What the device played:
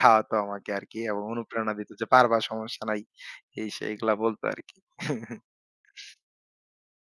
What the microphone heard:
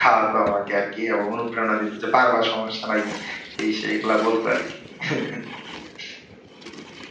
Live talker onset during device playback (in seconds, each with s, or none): none